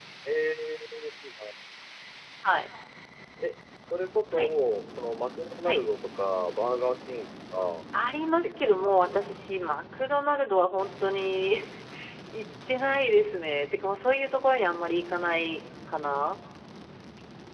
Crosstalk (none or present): present